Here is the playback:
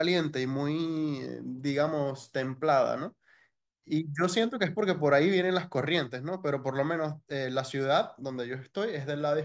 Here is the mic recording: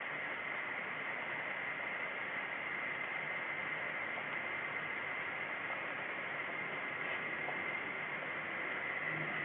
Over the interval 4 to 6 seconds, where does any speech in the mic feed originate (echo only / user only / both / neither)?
neither